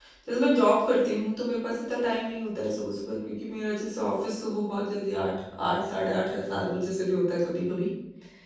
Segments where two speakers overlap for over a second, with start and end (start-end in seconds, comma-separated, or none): none